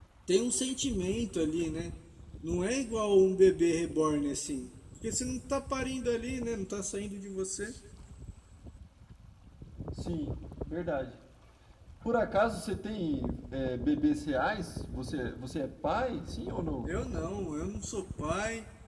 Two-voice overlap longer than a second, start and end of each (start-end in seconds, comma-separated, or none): none